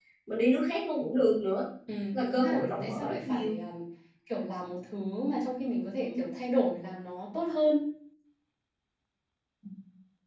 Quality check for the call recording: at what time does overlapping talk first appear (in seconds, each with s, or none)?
2.1 s